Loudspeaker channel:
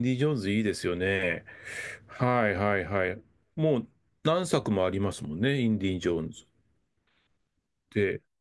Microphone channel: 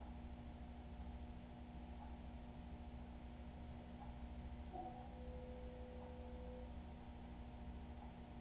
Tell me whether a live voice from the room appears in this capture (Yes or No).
No